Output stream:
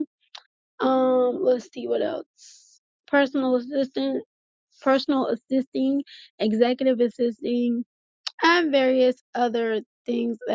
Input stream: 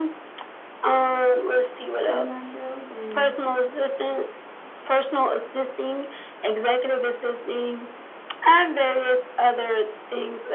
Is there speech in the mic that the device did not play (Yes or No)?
Yes